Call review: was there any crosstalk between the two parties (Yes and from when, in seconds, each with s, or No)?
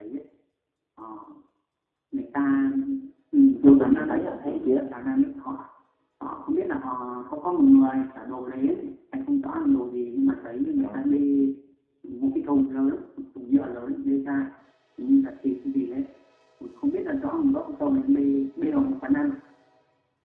Yes, from 3.6 s